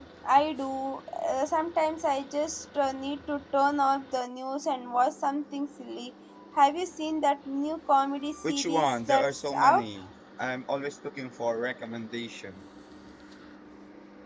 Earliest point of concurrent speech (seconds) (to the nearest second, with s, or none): 8 s